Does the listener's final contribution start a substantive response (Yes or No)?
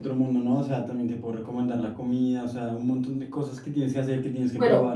Yes